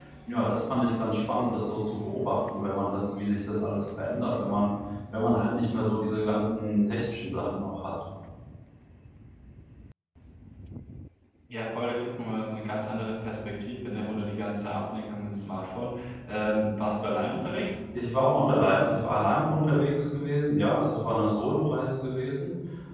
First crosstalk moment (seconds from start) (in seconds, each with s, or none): none